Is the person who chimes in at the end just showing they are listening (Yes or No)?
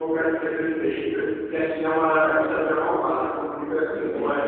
Yes